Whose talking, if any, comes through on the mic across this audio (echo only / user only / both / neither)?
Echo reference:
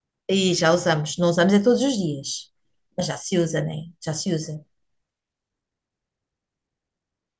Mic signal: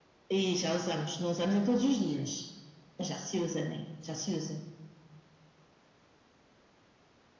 both